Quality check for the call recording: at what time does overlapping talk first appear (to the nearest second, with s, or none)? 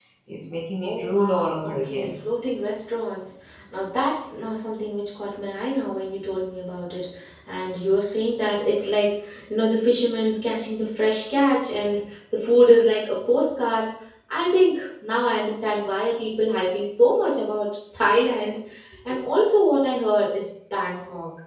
1 s